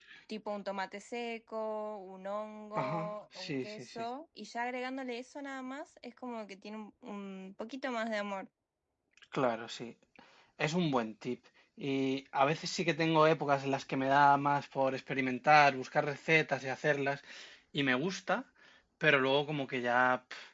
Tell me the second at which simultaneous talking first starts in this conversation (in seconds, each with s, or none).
2.8 s